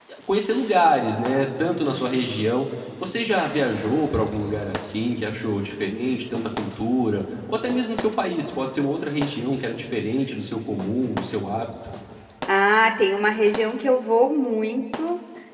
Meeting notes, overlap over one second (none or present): none